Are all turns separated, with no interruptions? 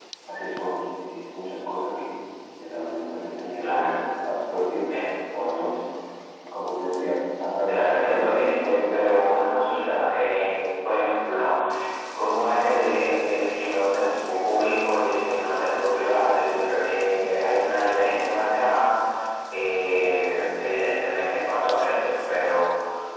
No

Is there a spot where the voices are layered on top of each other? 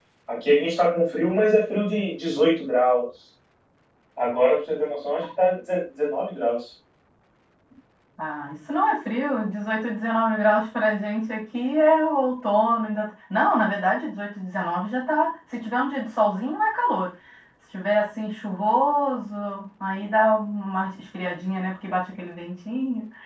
No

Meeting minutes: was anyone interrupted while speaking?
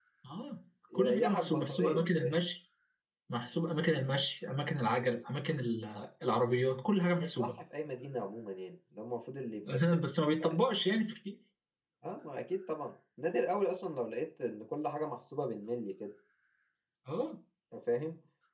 Yes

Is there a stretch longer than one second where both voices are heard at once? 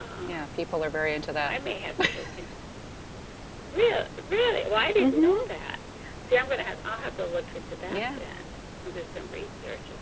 No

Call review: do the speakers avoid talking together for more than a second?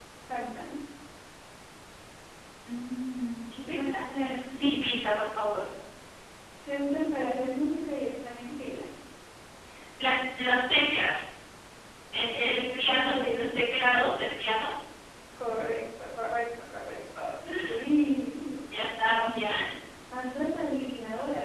No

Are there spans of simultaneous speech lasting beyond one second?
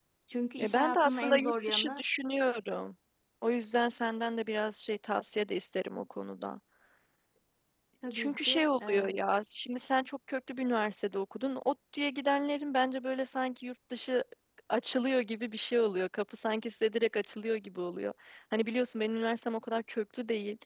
Yes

